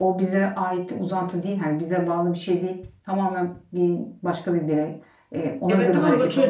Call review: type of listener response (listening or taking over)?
taking over